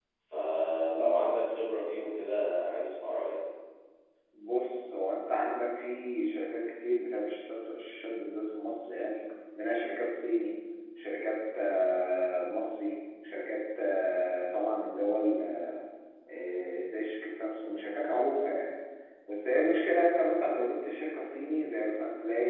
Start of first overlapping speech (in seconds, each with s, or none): none